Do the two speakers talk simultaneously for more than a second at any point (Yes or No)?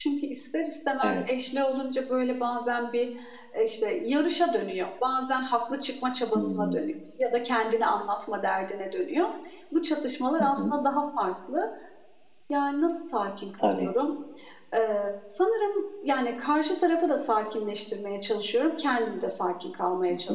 No